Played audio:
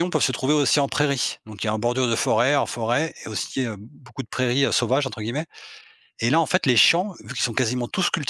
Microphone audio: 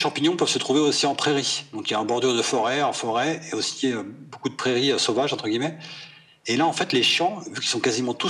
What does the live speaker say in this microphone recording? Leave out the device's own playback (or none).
none